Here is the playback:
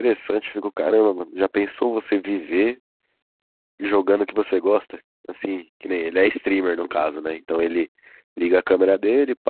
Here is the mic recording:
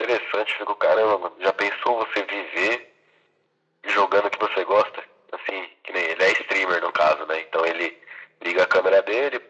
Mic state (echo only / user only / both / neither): echo only